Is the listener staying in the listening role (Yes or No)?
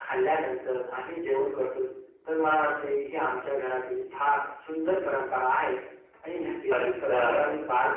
Yes